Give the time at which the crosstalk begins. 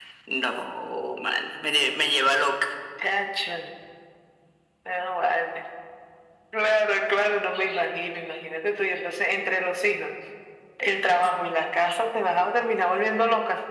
none

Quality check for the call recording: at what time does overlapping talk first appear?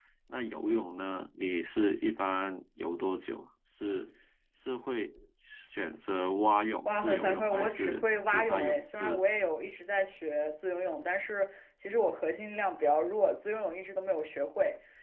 7 s

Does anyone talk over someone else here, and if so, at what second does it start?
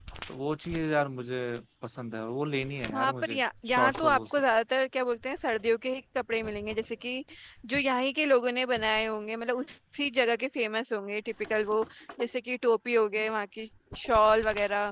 3 s

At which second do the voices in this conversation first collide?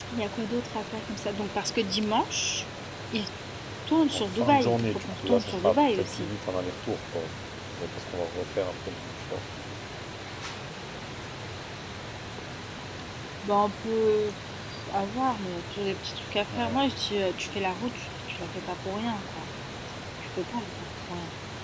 4 s

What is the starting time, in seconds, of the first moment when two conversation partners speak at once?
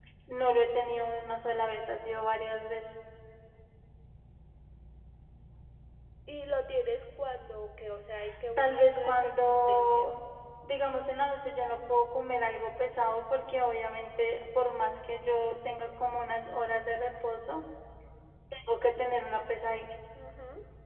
9 s

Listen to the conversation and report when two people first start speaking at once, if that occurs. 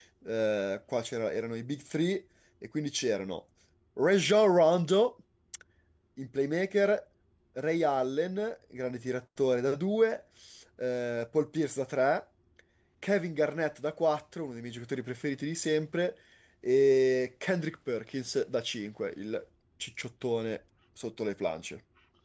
none

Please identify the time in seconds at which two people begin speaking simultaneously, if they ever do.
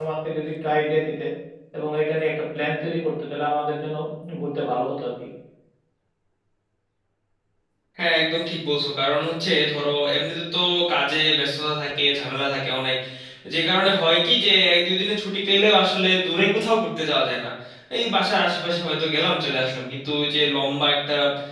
none

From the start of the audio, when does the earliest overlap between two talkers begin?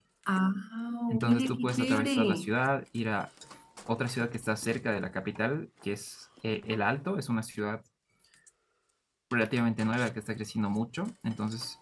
1 s

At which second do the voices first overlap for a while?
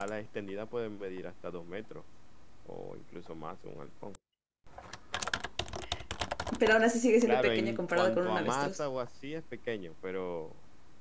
7 s

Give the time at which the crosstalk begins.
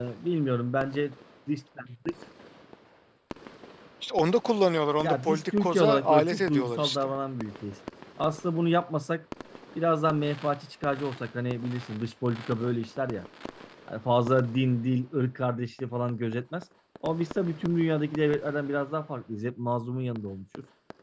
5 s

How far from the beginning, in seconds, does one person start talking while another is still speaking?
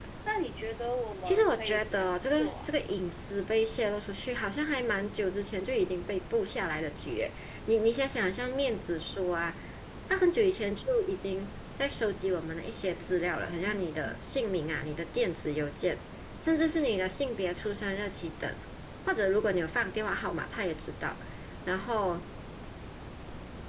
1 s

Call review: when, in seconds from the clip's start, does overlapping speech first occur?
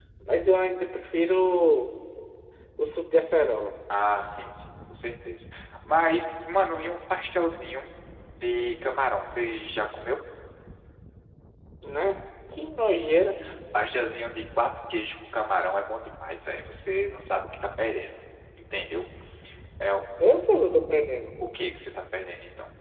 none

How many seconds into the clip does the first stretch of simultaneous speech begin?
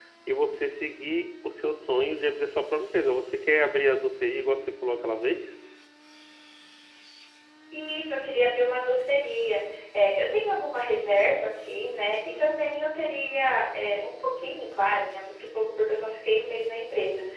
none

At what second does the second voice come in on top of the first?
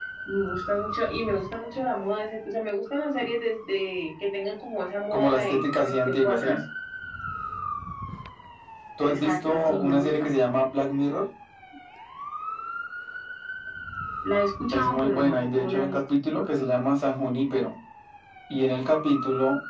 5 s

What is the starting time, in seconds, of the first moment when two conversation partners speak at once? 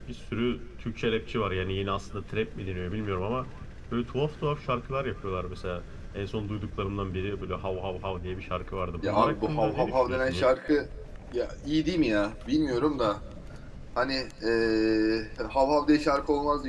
9 s

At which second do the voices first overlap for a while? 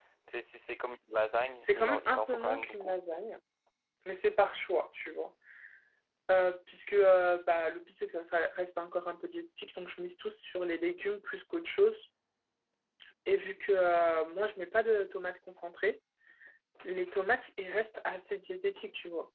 2 s

